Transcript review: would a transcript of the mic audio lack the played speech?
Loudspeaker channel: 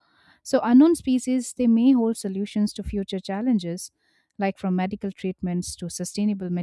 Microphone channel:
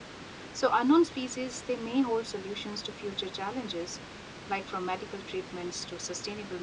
No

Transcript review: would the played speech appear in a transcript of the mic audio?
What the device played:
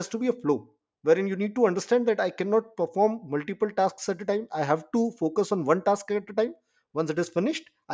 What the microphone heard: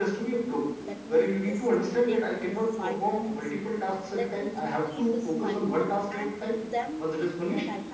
Yes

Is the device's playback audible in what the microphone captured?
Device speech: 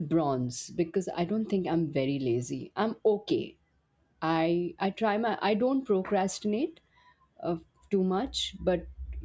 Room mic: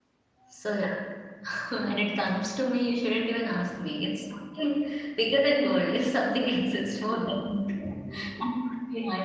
No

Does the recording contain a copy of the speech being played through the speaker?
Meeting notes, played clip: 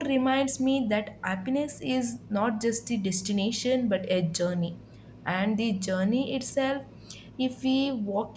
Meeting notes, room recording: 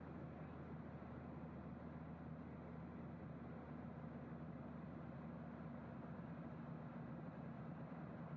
No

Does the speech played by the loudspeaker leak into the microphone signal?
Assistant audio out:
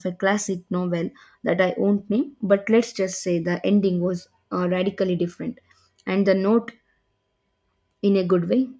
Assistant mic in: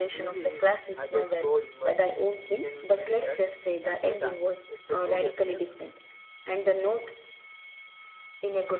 Yes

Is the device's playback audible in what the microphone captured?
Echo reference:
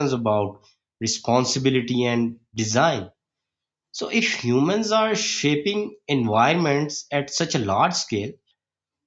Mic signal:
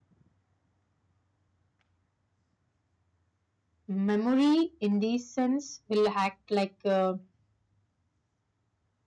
No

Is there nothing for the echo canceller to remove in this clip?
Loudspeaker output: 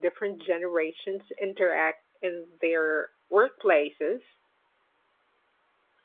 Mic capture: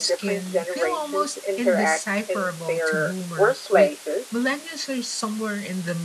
No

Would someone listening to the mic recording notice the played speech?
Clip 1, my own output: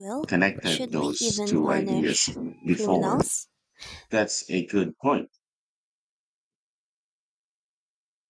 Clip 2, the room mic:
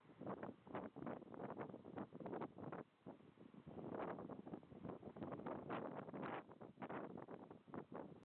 No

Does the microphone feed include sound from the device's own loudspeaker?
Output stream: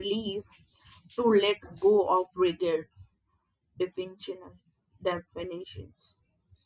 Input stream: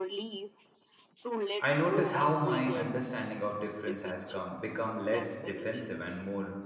Yes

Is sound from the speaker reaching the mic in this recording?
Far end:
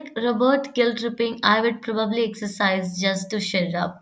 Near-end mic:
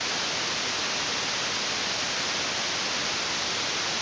No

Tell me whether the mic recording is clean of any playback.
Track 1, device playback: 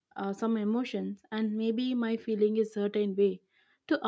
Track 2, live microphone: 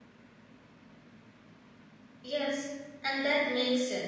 Yes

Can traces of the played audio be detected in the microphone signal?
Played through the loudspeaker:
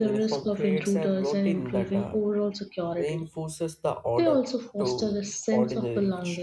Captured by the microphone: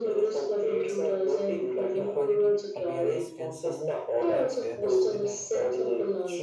Yes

